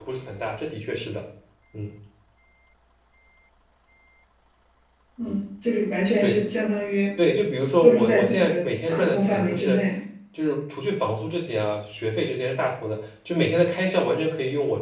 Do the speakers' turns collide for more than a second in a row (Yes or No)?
Yes